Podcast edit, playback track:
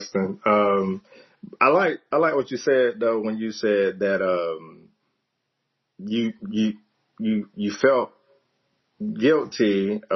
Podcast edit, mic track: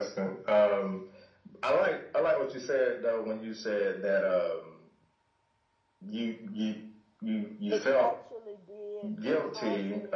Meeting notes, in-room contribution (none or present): present